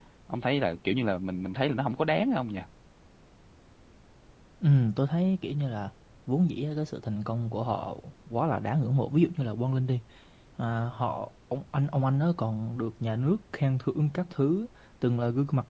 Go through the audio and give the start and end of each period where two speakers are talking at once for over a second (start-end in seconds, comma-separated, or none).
none